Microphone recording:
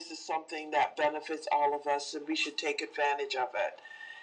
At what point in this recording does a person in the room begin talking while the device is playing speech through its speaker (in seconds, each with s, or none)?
none